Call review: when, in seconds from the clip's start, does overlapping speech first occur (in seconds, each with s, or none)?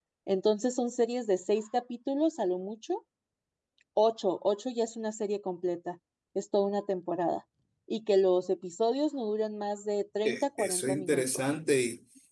10.2 s